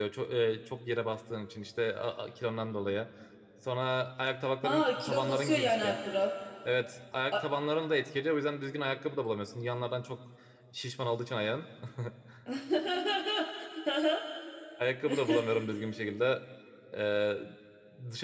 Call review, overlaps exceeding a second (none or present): present